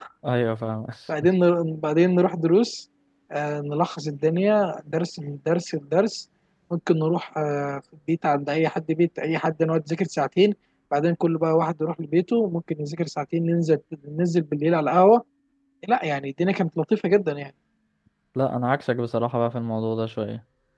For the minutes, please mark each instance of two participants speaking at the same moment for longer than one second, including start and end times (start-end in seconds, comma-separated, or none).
none